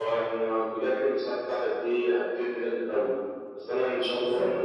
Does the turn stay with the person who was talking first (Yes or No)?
Yes